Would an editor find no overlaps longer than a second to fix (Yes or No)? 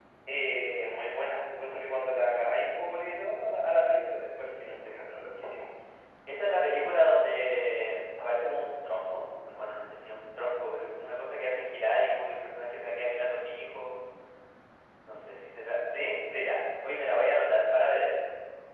Yes